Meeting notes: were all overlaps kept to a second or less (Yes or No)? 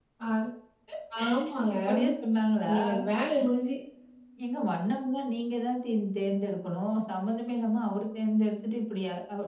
Yes